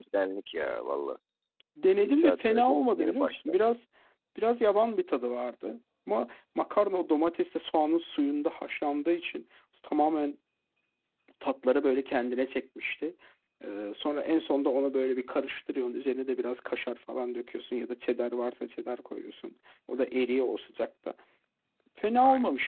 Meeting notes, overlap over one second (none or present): present